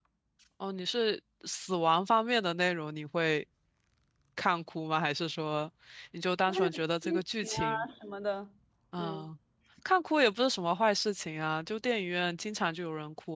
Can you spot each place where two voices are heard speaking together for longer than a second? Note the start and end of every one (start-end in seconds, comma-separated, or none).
6.5-7.8